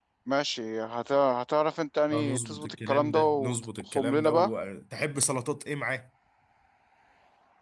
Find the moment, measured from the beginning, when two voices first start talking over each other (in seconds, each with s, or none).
2.1 s